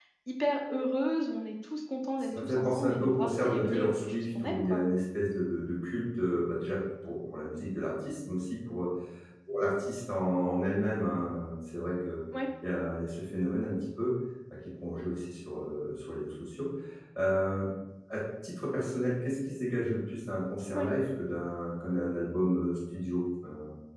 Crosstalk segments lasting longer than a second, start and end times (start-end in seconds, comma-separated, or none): 2.4-4.8